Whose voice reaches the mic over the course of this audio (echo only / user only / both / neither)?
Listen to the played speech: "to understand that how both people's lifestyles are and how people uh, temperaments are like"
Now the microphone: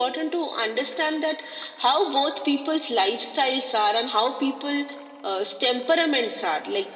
echo only